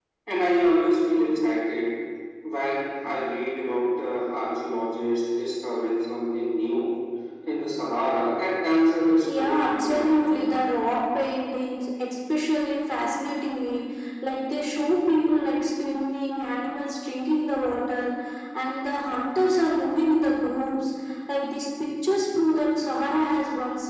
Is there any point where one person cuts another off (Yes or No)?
Yes